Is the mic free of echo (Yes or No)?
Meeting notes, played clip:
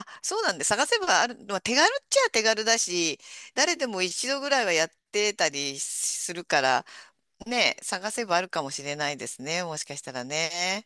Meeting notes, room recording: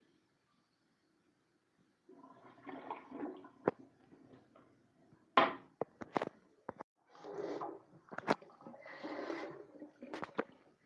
Yes